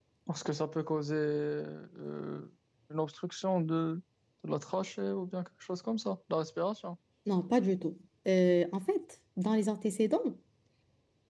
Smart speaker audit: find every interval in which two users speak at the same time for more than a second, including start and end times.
none

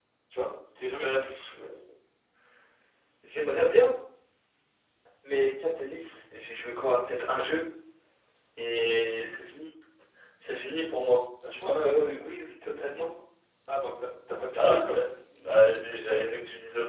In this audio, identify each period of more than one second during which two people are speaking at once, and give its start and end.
none

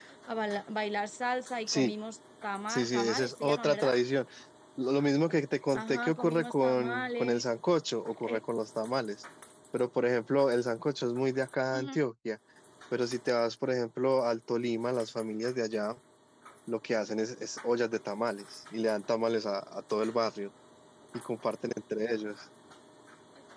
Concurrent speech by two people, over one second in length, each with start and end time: 2.7-3.9, 5.7-7.4

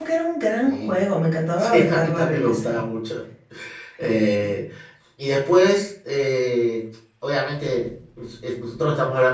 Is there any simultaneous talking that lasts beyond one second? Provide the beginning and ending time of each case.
1.6-2.8

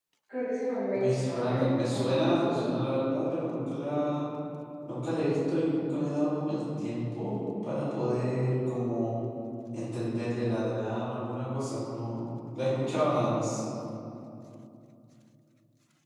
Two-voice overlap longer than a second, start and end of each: 0.9-2.6

